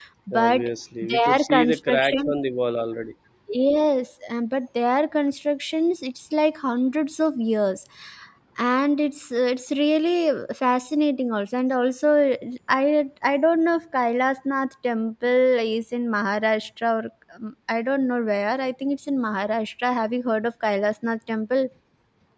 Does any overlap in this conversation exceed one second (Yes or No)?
Yes